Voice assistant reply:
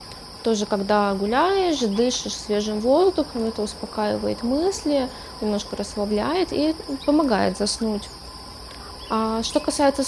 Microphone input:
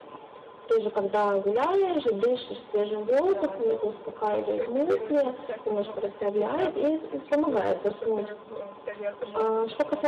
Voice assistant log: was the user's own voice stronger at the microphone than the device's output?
No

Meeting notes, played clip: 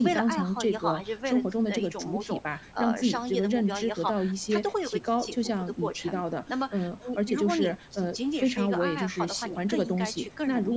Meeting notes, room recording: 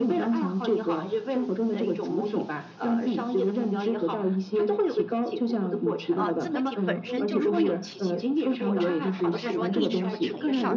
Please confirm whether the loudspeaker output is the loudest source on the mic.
Yes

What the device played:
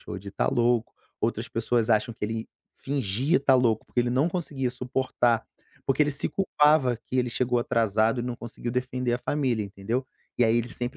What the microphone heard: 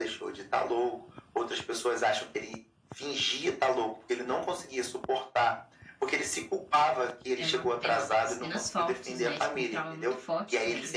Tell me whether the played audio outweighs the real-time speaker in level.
Yes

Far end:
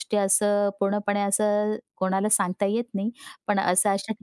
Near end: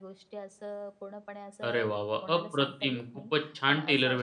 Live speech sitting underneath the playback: No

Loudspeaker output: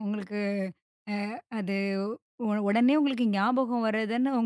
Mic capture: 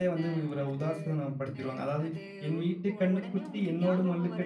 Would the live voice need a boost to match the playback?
No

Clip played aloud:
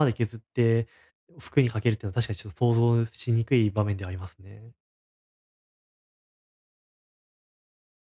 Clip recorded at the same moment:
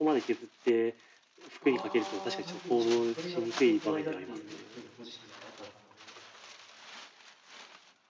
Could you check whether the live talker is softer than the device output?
Yes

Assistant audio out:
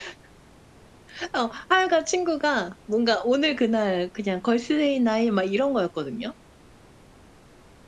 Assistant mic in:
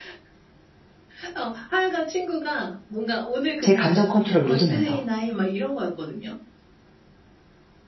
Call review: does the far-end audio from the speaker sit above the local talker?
No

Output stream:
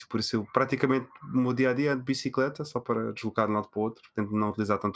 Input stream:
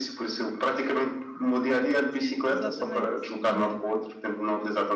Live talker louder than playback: No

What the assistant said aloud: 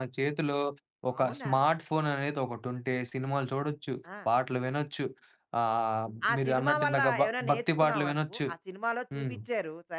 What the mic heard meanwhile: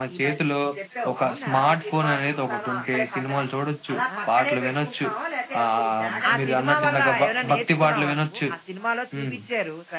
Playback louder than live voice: Yes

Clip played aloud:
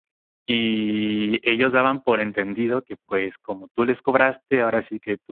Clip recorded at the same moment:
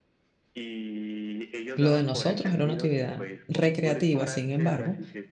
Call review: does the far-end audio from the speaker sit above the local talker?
No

